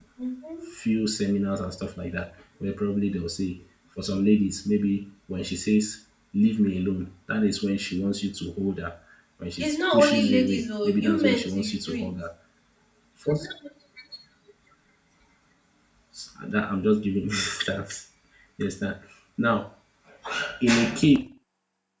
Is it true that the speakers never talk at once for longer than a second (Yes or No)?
No